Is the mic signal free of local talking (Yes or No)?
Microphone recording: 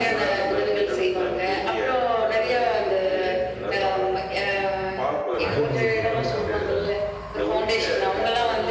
No